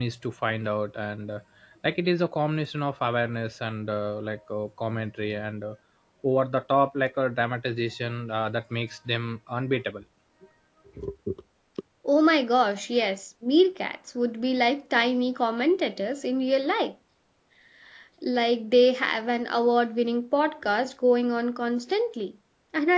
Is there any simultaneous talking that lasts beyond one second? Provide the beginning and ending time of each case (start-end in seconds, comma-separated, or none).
none